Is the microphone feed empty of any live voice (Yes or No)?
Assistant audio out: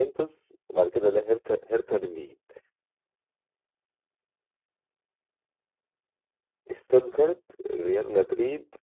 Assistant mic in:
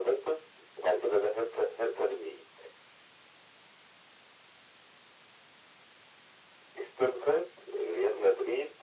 Yes